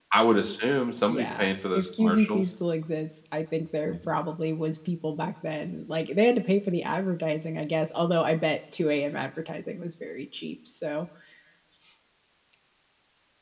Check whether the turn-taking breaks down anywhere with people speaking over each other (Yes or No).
Yes